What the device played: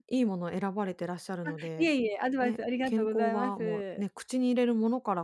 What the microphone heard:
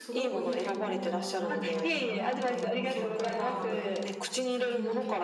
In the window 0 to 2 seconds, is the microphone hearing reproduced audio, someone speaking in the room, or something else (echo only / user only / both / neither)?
both